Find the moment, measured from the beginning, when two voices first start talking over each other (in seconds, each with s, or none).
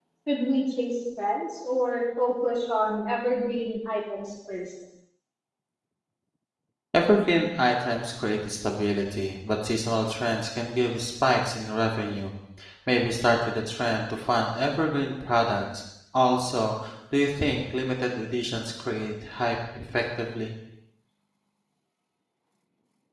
none